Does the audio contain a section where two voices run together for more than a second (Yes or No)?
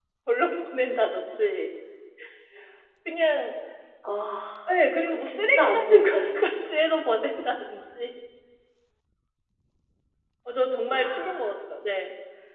Yes